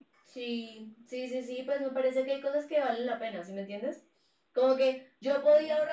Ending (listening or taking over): listening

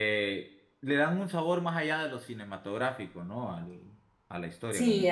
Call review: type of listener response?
taking over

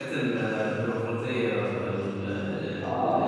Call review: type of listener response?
taking over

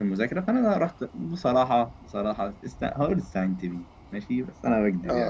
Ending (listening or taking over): taking over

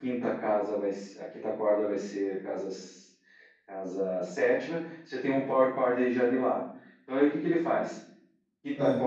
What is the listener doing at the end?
listening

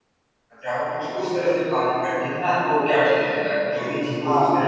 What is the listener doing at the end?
taking over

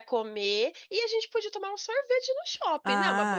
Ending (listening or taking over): taking over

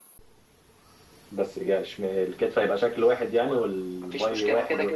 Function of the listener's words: taking over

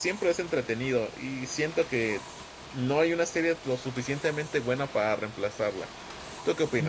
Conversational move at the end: taking over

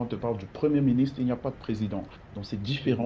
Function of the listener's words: listening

